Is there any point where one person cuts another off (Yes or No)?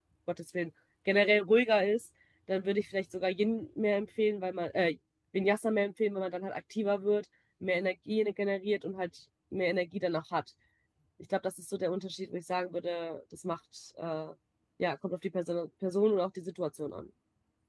No